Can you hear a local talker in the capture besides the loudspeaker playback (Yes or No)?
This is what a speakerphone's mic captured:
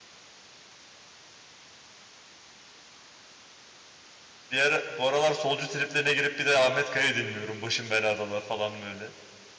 Yes